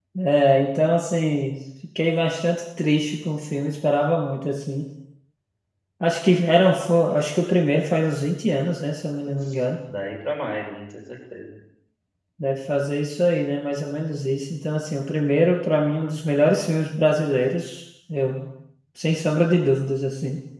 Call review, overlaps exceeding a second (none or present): none